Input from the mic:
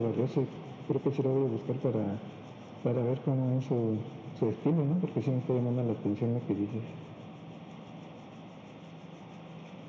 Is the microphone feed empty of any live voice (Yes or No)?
Yes